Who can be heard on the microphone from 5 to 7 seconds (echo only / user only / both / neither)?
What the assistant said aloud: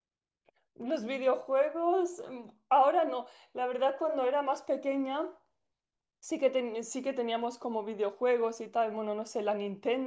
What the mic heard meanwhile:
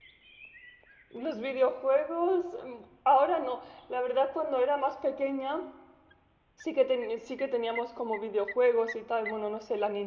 echo only